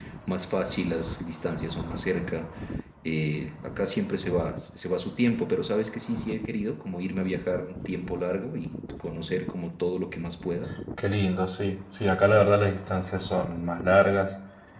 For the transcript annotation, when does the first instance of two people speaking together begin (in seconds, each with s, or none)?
none